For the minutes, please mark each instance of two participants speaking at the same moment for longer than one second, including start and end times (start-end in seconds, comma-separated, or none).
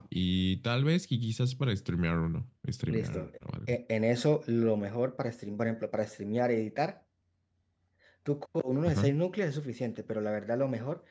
none